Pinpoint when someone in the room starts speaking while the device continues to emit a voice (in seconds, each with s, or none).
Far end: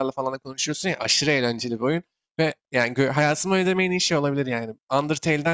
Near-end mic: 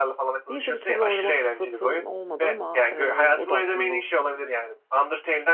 0.5 s